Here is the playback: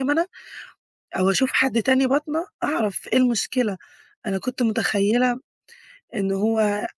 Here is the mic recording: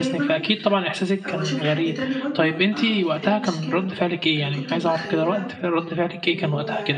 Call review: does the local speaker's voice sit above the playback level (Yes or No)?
Yes